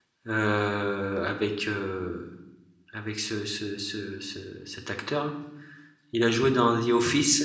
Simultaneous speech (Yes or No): No